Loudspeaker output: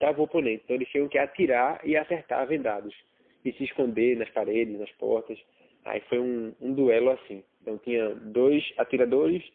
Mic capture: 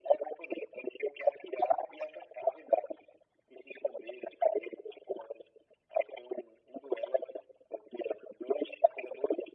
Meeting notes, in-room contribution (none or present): none